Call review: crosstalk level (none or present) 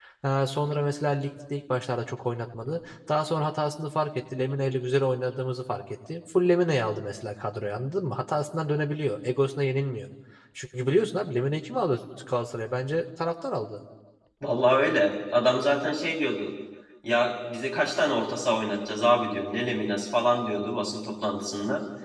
none